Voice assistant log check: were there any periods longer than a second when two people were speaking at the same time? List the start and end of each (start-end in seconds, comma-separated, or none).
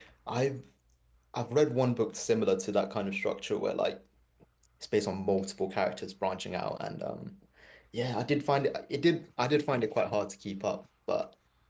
none